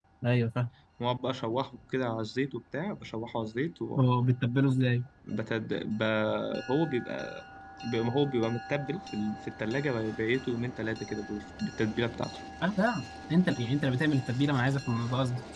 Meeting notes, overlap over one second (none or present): none